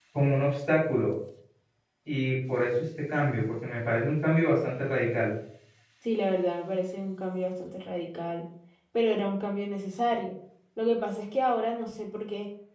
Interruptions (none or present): none